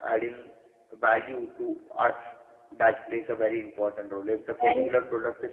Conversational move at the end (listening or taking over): listening